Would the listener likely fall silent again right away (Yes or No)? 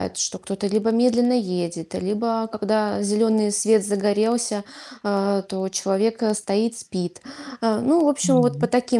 Yes